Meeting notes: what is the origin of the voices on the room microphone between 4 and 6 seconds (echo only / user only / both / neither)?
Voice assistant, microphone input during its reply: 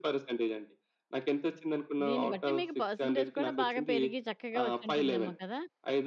both